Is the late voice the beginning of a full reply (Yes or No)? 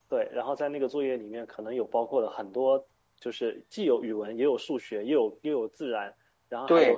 No